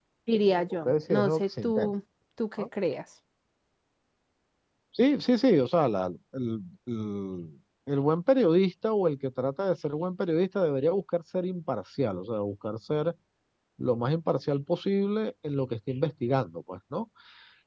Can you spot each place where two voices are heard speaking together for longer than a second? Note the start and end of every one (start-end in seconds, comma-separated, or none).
0.7-1.9